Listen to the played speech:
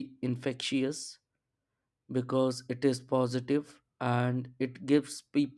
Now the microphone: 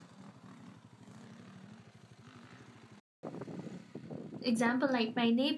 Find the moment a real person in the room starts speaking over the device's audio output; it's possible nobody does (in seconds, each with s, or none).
4.4 s